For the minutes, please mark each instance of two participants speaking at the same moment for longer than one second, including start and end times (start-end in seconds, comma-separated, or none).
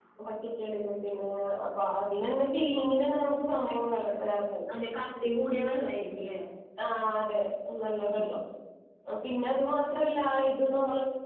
none